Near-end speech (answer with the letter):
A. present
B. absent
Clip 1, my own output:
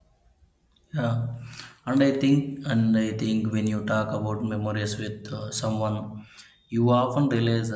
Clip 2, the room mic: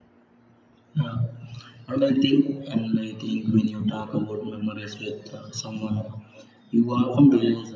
B